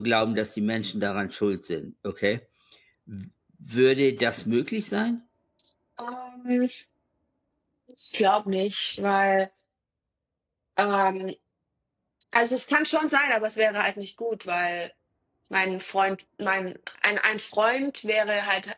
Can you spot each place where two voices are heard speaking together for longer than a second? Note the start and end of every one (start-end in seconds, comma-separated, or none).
none